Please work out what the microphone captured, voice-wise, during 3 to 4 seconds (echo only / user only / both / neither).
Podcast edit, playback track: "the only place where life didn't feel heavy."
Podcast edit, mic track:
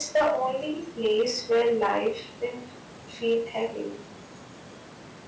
echo only